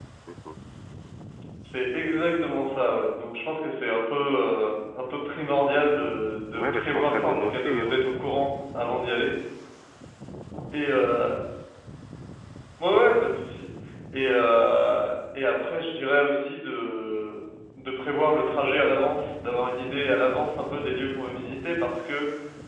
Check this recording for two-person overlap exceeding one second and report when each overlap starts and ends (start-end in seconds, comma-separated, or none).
6.5-8.0